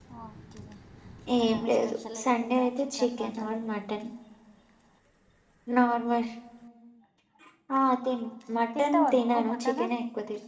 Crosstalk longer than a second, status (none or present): present